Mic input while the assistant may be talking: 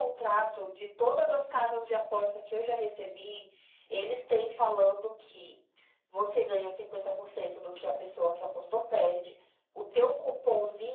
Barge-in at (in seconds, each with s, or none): none